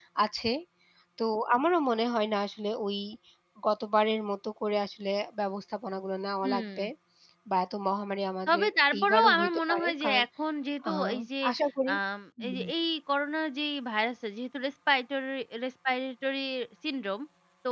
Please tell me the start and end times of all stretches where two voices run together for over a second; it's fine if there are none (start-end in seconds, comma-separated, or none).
8.5-10.2